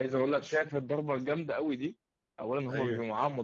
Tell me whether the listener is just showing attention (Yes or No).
Yes